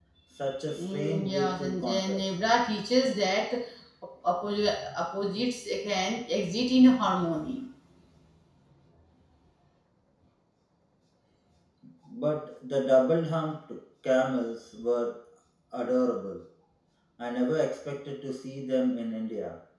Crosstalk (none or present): present